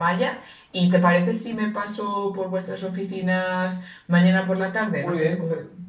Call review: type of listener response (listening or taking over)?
taking over